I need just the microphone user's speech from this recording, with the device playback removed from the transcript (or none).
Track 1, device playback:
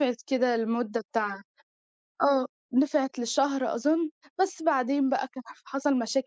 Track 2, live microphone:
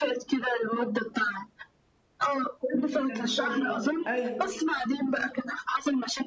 كويس جدًا ما شاء الله، أيوه،